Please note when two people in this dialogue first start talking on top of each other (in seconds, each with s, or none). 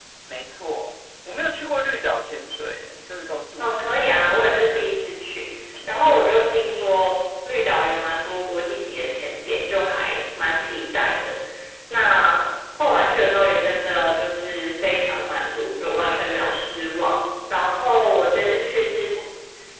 3.6 s